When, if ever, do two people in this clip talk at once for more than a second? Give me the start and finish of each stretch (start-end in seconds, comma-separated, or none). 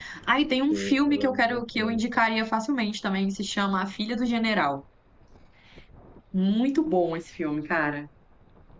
0.7-2.0